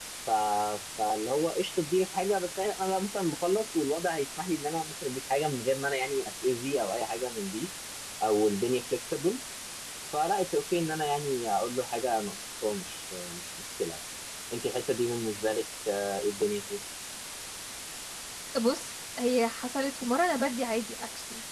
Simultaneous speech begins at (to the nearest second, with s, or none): none